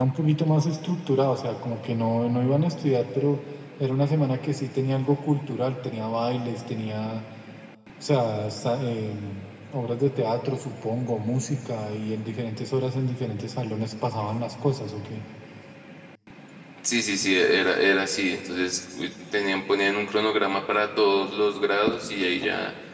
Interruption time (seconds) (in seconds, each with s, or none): none